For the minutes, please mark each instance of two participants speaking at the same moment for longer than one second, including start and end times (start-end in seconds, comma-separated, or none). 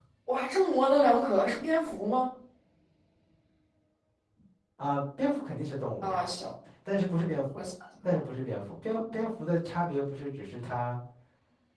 none